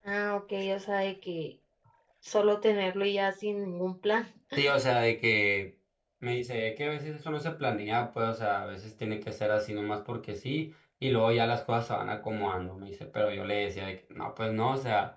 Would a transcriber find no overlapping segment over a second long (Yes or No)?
Yes